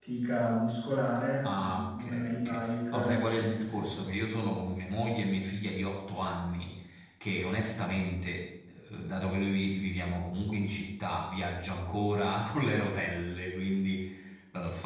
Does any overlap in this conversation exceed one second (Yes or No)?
Yes